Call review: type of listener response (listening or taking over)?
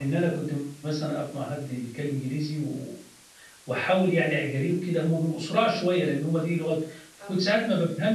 listening